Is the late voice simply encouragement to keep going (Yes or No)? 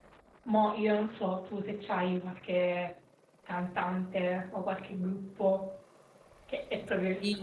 No